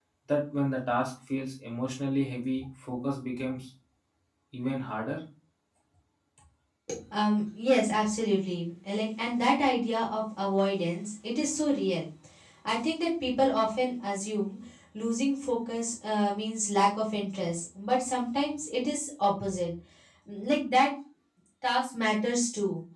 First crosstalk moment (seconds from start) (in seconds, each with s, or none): none